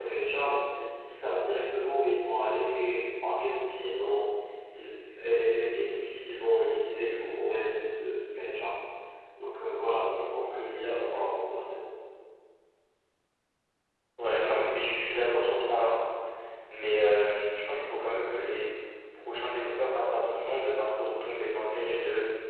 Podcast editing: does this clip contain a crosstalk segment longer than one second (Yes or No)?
No